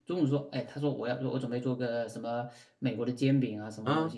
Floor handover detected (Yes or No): No